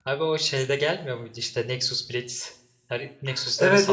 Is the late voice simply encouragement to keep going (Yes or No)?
No